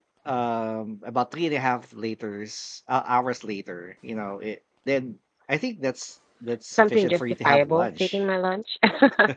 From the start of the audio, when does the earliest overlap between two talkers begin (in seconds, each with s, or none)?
6.7 s